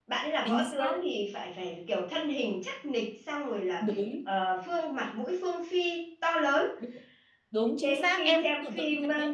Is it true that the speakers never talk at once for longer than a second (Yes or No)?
No